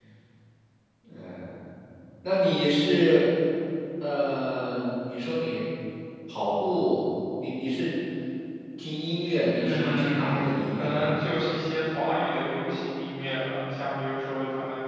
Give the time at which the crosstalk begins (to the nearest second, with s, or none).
10 s